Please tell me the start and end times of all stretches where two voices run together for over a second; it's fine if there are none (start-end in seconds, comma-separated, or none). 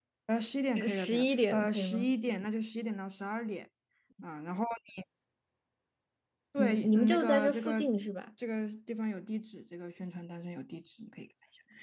0.8-2.1, 6.6-7.8